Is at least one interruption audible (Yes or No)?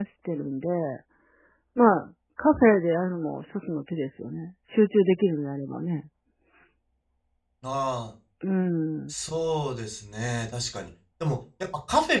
No